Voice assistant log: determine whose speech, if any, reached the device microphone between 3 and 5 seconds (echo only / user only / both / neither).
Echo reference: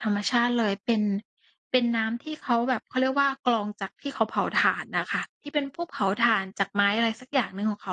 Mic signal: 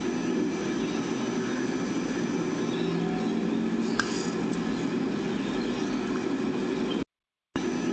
neither